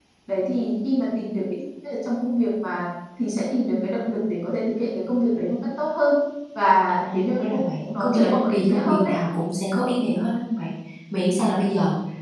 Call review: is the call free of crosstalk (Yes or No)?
No